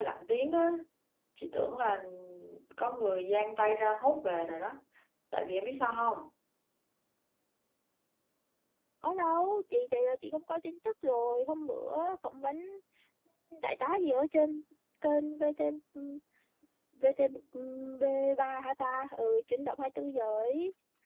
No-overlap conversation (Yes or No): Yes